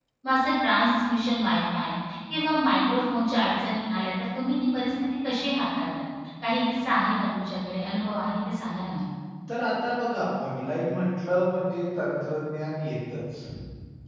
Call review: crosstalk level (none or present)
none